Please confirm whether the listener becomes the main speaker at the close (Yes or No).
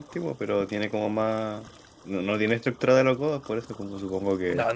Yes